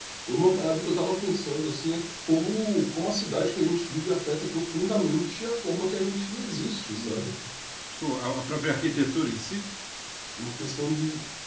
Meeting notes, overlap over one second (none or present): none